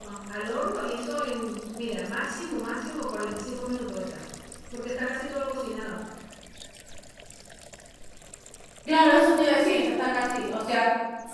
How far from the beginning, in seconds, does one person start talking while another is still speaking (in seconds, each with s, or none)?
none